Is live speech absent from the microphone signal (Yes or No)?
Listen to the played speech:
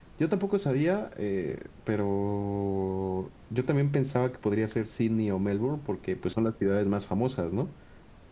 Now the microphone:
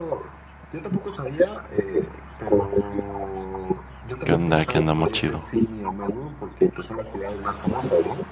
No